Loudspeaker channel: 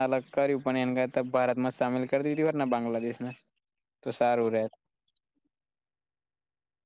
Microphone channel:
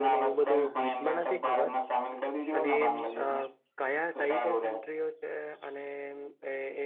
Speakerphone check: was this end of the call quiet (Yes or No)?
No